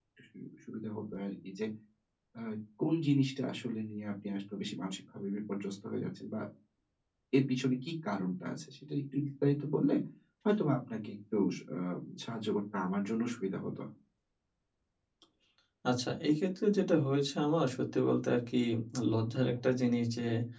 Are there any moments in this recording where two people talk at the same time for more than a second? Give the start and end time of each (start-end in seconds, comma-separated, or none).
none